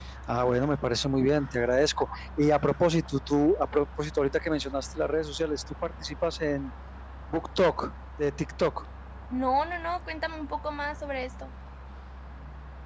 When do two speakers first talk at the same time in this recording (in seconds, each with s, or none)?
none